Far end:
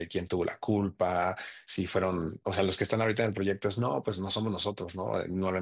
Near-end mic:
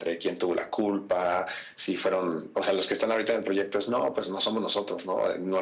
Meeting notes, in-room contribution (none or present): none